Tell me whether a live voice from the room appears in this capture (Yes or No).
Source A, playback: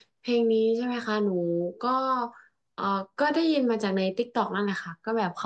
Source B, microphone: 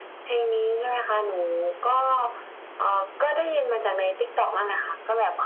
No